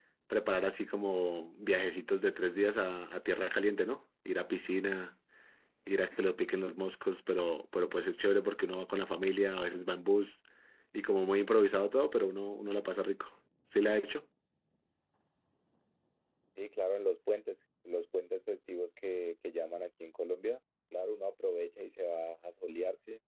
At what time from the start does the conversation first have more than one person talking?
none

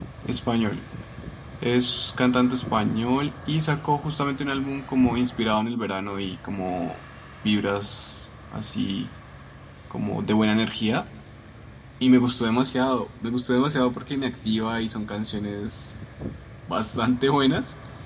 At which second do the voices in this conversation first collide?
none

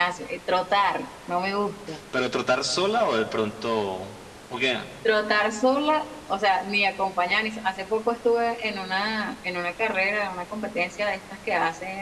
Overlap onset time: none

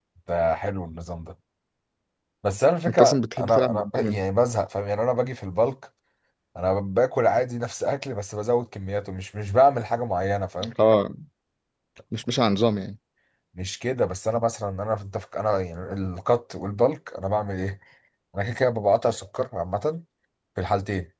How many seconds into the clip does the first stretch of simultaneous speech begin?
2.9 s

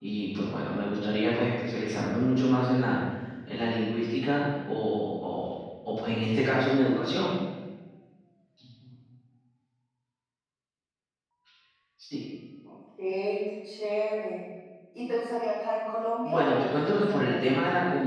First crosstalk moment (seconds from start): 16.2 s

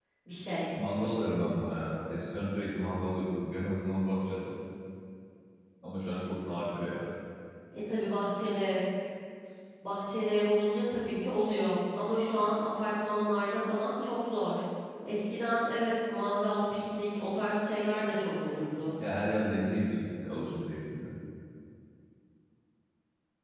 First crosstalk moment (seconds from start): none

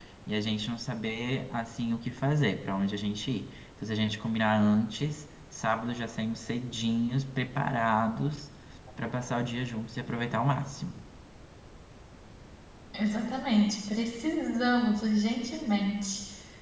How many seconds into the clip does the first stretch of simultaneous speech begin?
none

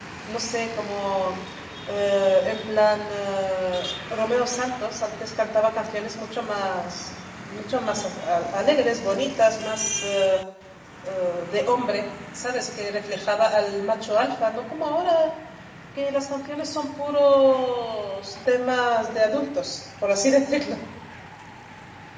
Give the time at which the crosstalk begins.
none

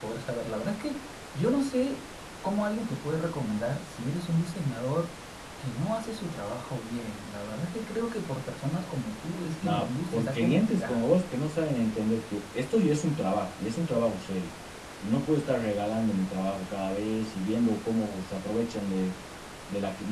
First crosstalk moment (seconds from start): 9.6 s

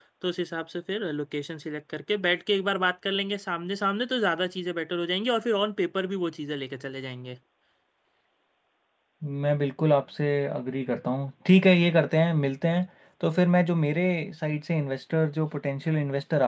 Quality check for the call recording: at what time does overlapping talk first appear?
none

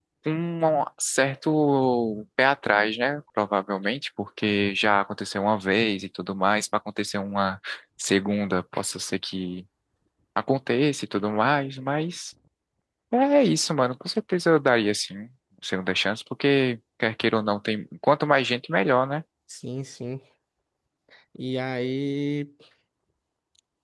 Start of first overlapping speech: none

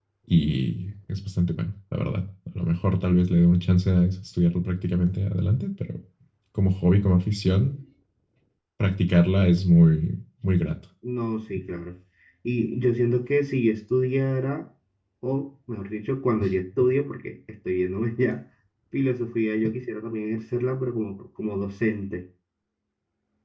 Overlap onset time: none

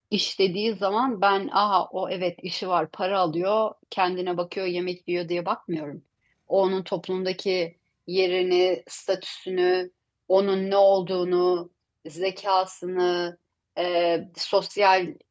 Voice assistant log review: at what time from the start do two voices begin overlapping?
none

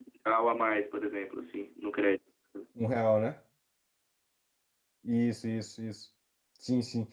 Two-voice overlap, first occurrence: none

